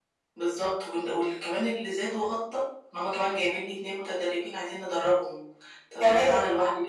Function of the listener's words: listening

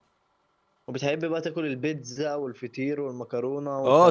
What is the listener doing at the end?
taking over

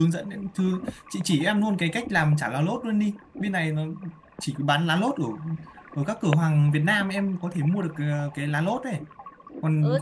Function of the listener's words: taking over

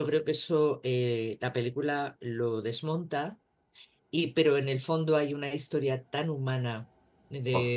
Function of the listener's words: listening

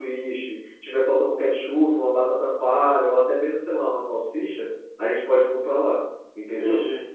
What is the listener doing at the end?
taking over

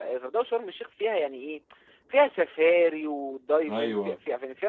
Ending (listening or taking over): listening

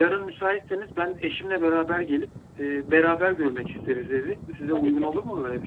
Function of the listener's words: taking over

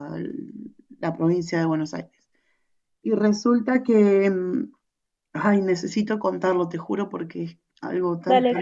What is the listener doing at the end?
taking over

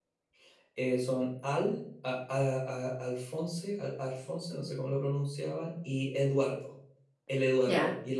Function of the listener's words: taking over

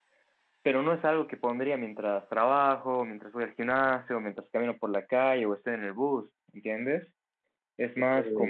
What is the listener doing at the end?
listening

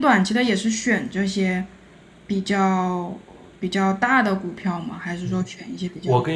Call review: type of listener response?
taking over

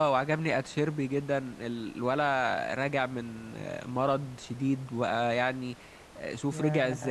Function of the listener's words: listening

